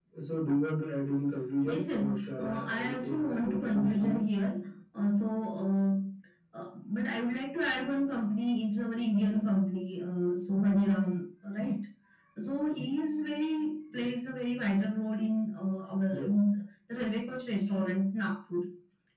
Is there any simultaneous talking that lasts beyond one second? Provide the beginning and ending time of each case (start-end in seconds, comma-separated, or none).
1.6-4.2